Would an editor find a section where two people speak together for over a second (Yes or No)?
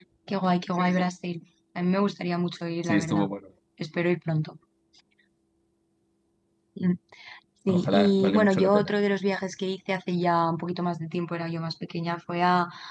Yes